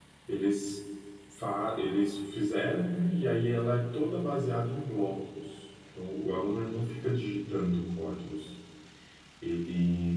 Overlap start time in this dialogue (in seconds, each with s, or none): none